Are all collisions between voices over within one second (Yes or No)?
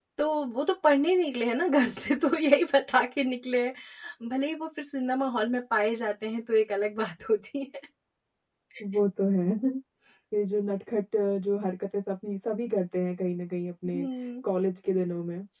Yes